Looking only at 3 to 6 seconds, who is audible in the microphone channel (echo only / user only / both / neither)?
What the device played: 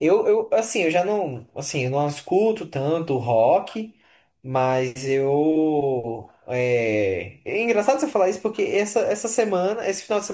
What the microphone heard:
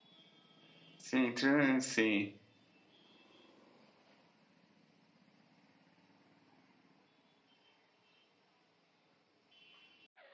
neither